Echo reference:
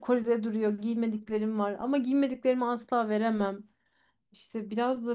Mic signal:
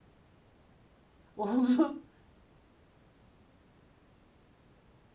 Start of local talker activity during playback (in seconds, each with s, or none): 1.4 s